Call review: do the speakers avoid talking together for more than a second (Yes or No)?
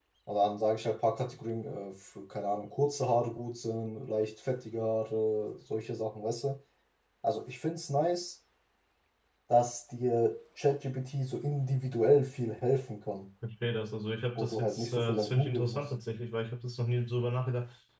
No